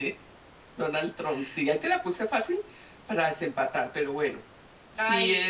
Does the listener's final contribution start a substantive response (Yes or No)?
No